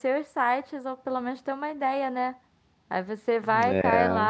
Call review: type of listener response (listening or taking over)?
listening